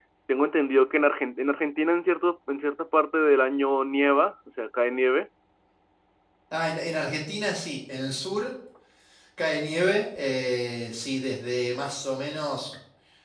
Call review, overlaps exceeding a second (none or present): none